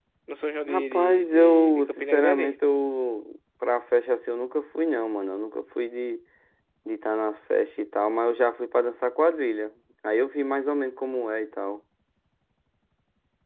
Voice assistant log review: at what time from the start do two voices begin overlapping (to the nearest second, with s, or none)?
1 s